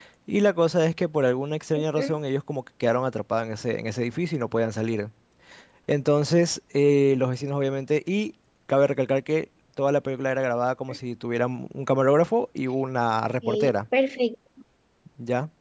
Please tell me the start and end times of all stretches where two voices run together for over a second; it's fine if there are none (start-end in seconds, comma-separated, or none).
none